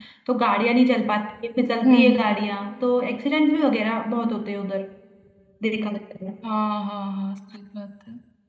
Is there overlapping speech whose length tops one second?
No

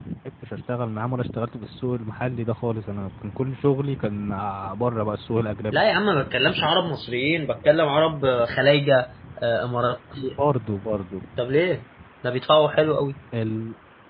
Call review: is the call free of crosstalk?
Yes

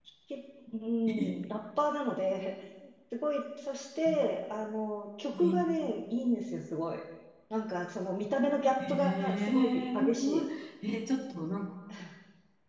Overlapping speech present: Yes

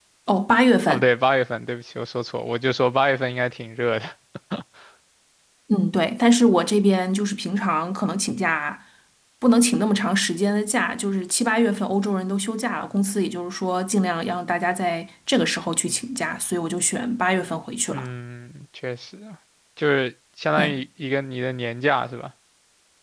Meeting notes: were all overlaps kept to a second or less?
Yes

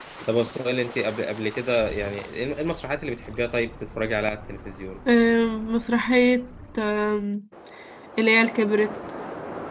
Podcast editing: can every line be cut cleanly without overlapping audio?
Yes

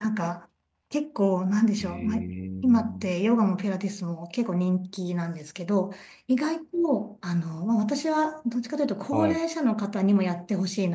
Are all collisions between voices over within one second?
Yes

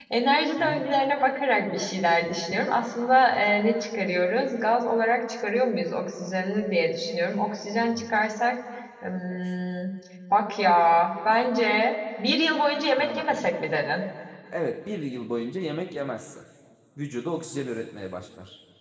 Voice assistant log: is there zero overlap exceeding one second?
Yes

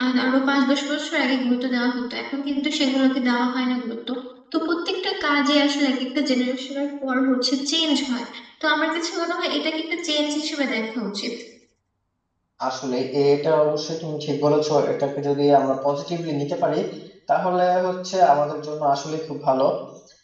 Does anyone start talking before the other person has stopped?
No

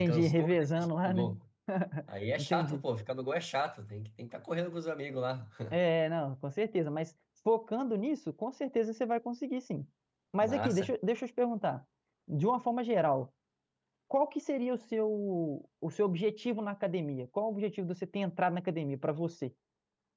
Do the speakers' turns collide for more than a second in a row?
Yes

